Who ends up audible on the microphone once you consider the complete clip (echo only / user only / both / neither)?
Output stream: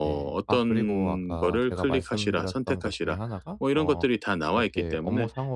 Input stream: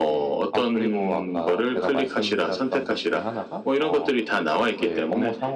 echo only